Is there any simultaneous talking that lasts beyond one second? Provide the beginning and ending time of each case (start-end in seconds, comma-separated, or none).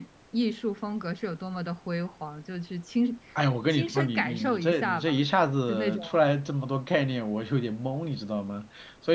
3.7-5.2